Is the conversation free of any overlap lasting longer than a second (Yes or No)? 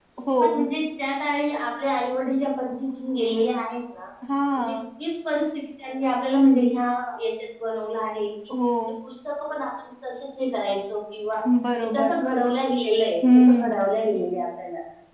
Yes